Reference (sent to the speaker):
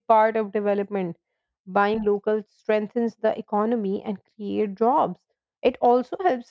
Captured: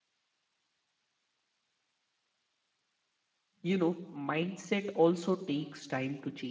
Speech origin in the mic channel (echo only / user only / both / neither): user only